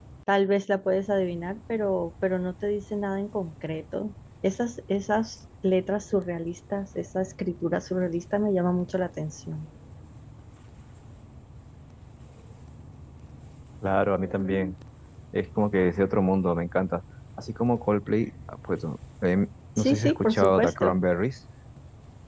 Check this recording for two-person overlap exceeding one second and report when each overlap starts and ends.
19.8-21.0

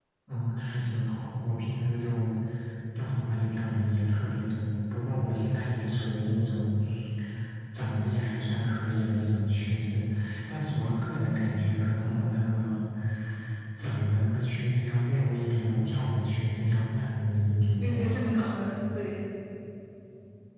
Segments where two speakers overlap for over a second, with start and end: none

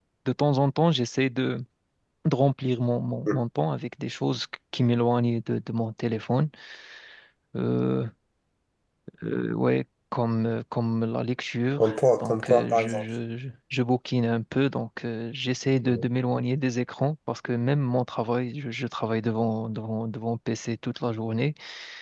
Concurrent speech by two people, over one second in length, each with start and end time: 11.8-13.0

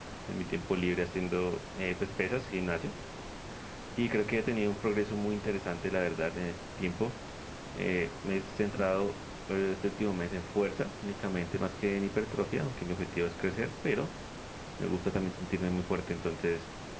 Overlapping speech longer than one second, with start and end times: none

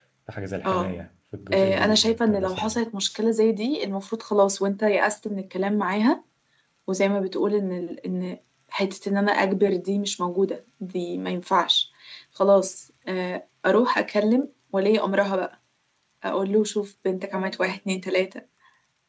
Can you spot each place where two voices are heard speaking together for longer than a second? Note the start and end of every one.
1.5-2.8

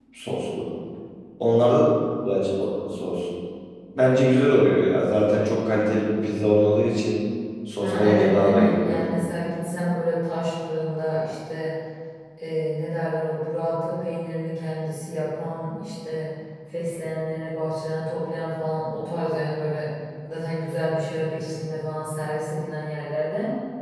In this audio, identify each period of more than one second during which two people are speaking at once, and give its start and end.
7.8-9.1

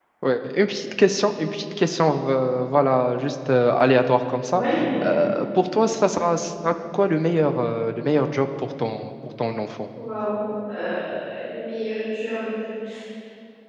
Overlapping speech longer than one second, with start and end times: none

